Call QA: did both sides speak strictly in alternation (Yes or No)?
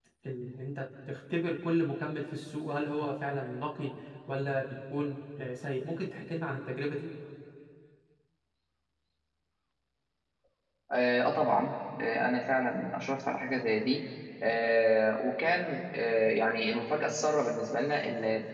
Yes